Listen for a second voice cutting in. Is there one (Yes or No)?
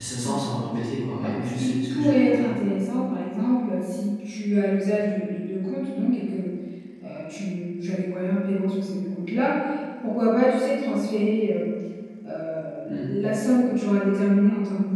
Yes